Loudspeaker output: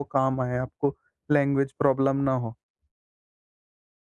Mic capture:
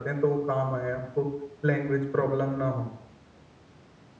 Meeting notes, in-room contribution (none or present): none